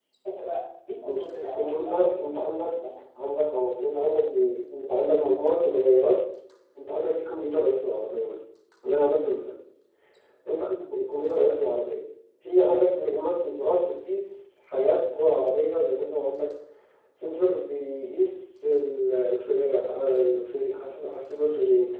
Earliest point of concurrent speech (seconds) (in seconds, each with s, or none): 1.0 s